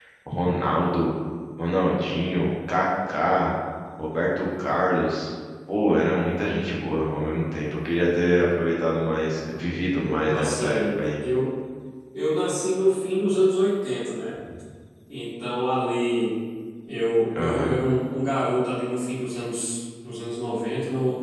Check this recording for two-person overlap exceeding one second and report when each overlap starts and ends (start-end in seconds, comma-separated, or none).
10.0-11.2